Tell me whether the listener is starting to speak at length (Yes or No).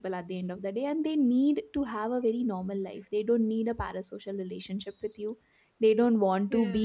No